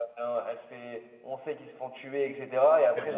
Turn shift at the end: No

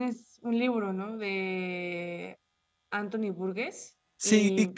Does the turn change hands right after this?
Yes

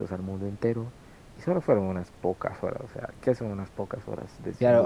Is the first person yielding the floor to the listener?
Yes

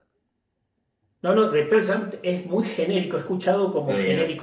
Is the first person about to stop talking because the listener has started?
No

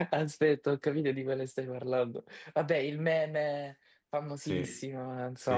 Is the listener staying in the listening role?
No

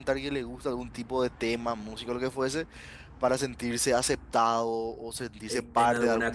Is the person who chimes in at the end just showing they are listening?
No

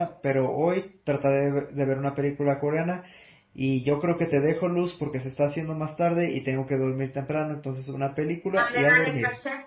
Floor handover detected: Yes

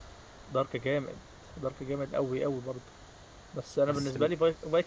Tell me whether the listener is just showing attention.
Yes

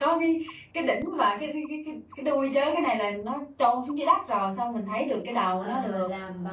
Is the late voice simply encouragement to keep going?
No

